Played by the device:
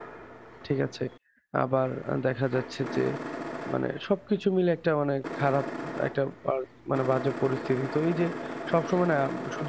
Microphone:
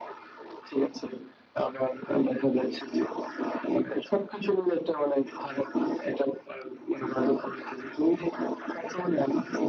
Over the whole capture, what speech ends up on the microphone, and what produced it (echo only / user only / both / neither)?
echo only